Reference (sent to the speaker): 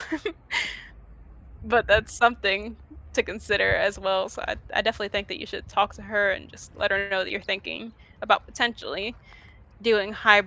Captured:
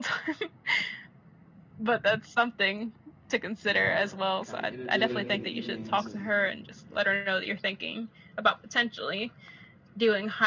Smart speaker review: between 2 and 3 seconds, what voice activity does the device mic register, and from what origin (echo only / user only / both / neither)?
echo only